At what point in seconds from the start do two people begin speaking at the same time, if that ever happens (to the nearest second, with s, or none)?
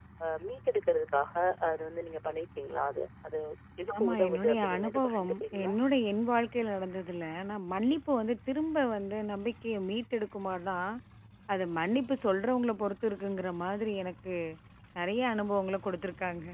4 s